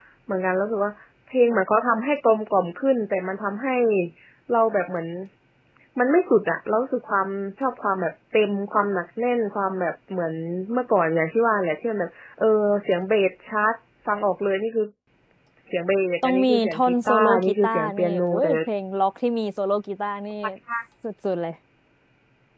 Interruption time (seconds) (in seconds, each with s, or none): 16.2 s